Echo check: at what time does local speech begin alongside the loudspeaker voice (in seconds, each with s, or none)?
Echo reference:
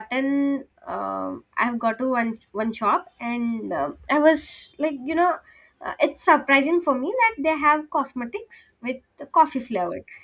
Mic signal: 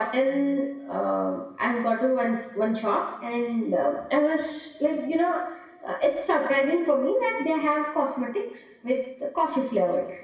none